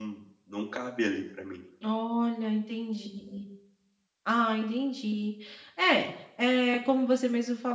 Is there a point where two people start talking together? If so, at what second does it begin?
none

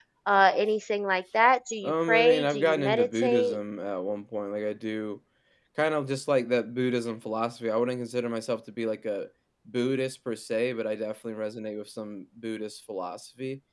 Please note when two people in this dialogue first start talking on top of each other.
2 s

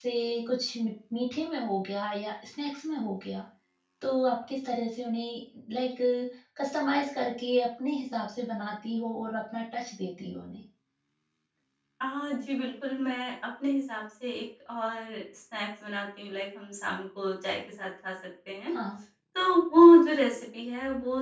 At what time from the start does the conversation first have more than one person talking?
none

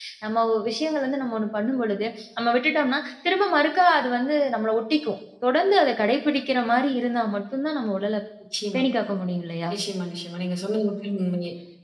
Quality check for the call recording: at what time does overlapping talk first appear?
none

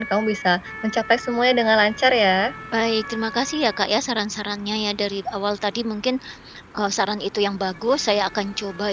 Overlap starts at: none

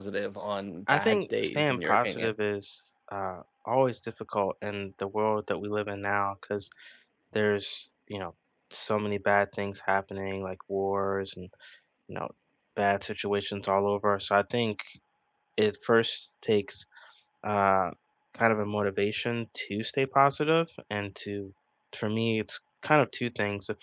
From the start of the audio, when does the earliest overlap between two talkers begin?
1 s

